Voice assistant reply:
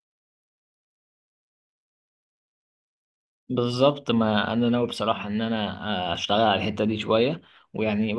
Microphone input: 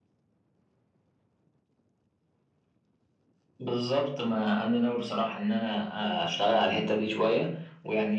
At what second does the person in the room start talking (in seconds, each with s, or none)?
none